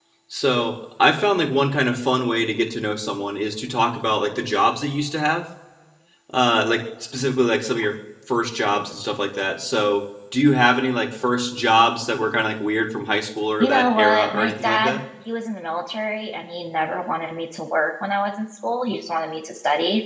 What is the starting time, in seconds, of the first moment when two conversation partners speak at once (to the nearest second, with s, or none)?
14 s